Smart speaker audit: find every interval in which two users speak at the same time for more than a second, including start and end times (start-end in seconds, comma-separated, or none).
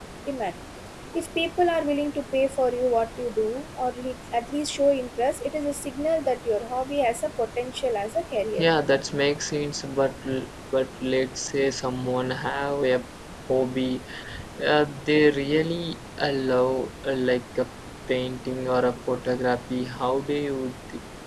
none